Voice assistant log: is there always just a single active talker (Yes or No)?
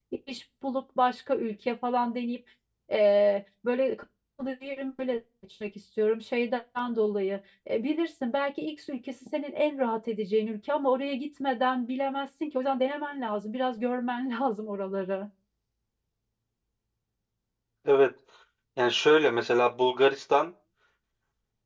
Yes